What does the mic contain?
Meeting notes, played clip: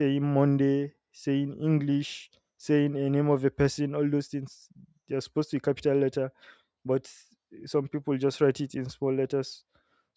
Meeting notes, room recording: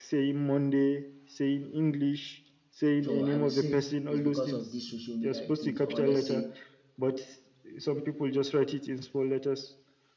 both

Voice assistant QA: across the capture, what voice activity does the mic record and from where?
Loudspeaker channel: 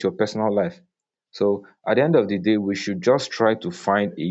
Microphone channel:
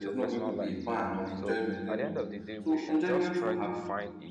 both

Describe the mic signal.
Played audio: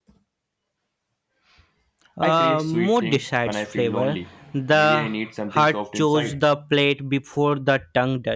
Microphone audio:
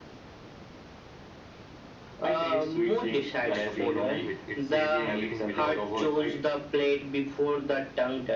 both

